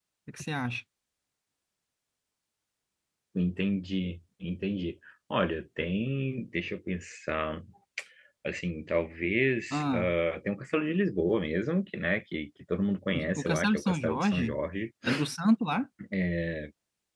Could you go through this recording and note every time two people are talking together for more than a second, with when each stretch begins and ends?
13.4-14.6

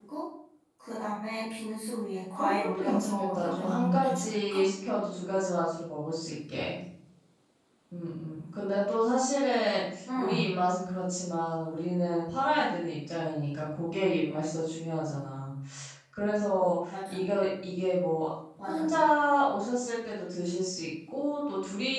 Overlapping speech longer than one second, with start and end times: 2.4-4.6

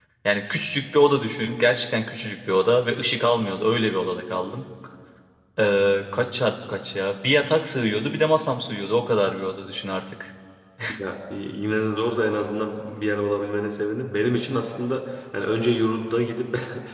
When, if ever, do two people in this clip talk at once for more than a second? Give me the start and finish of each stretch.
none

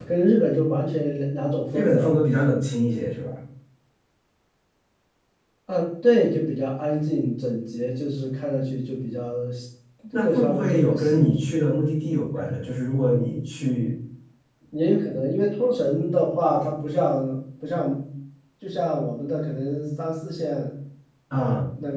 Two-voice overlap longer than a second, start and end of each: 10.2-11.5

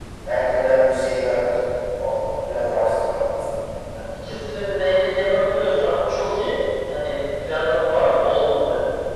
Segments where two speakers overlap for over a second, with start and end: none

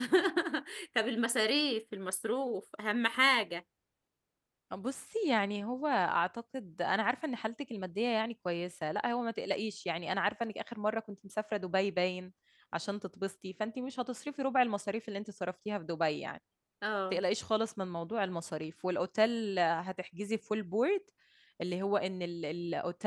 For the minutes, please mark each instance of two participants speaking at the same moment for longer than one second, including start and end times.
none

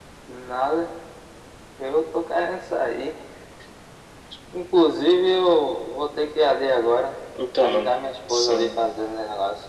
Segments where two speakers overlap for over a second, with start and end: 7.6-8.9

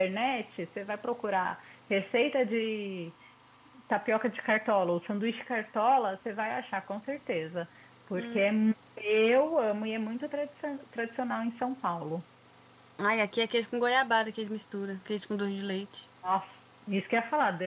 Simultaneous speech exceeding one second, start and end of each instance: none

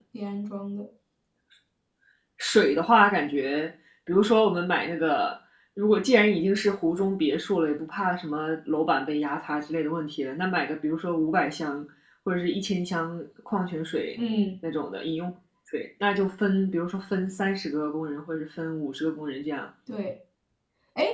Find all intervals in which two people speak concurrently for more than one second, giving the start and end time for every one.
none

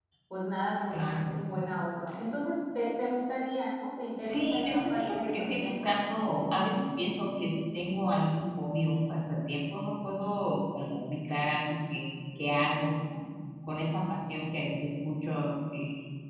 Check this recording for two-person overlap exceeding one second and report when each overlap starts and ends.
4.2-5.8

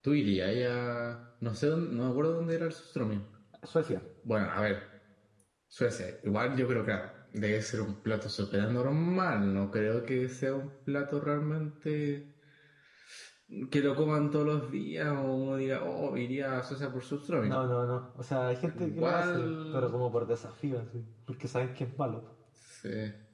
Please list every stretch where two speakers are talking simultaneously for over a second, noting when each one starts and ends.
18.7-19.9

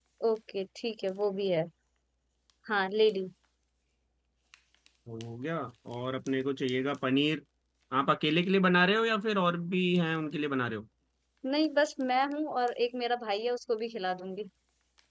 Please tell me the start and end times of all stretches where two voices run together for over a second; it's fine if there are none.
none

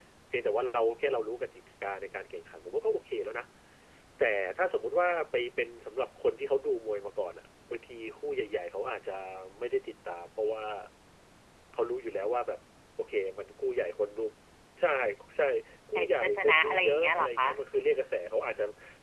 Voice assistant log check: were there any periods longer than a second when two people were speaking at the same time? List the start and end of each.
16.0-17.4

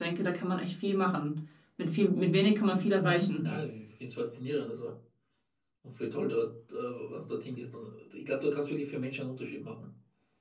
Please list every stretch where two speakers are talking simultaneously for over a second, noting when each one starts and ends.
none

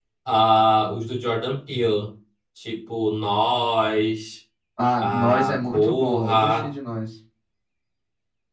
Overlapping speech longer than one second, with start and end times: 5.0-6.7

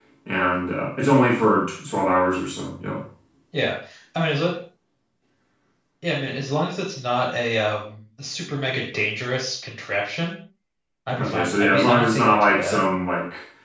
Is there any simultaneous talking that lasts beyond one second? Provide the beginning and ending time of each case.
11.2-12.8

